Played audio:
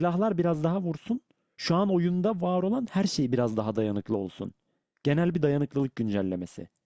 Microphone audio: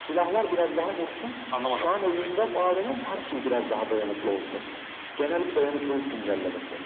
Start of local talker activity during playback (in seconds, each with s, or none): 1.5 s